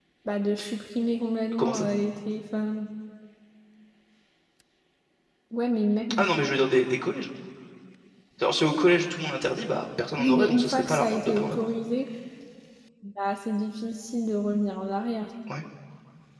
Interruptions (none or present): present